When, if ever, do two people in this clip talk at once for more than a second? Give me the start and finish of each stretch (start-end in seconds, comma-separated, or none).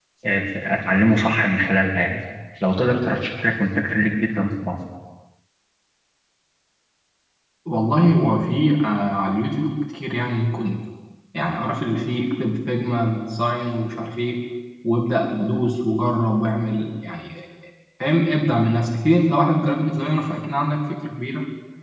none